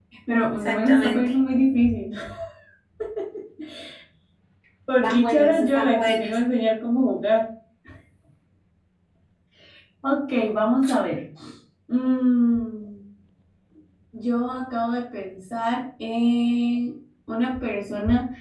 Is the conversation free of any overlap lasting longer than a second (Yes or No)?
No